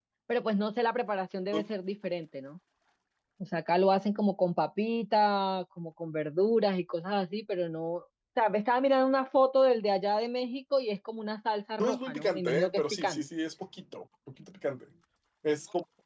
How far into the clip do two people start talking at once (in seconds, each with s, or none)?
11.8 s